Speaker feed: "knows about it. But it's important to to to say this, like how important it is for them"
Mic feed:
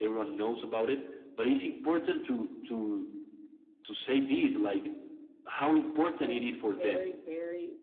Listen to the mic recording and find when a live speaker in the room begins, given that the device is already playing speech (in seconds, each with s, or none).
6.2 s